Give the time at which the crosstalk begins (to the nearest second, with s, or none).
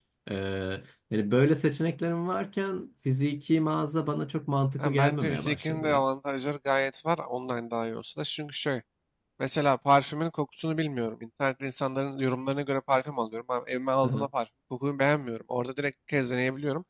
5 s